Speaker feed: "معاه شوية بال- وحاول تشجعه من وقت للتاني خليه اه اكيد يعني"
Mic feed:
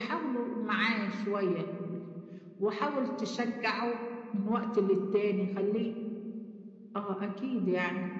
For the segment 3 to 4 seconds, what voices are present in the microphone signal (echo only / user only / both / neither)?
echo only